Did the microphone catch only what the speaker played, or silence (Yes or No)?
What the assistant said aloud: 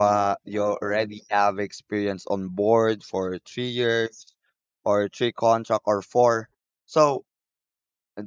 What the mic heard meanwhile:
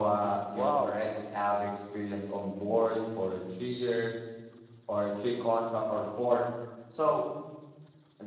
No